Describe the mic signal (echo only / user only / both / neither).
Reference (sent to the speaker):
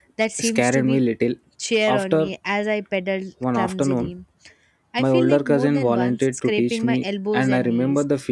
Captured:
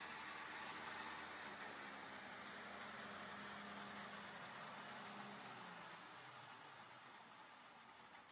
neither